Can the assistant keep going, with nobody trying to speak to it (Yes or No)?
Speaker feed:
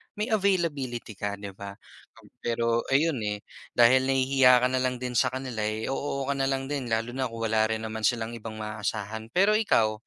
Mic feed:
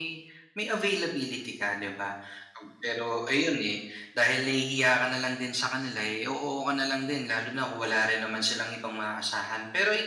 Yes